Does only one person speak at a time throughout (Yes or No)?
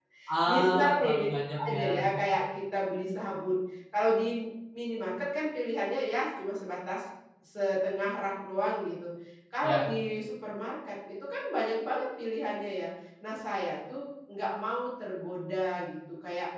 No